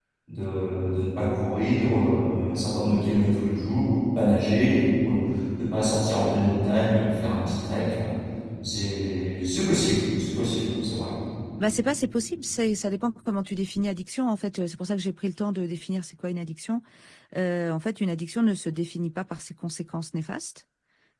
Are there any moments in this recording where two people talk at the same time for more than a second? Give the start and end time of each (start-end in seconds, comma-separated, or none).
none